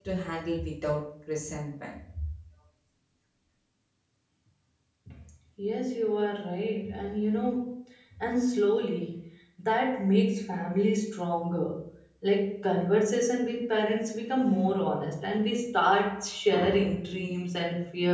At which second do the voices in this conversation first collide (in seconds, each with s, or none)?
none